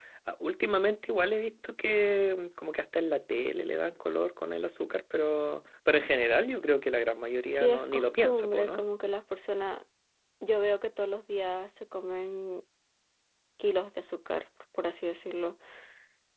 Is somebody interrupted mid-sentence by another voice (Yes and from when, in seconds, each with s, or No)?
Yes, from 7.4 s